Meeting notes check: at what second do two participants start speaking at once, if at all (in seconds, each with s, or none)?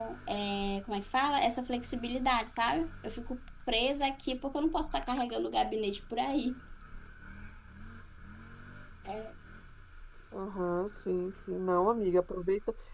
none